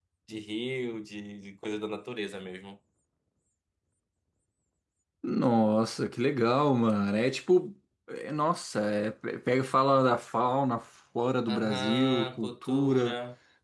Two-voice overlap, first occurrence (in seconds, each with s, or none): 11.5 s